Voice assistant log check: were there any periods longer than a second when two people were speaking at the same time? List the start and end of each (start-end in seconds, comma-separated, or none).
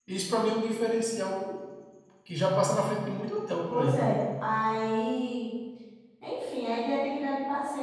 none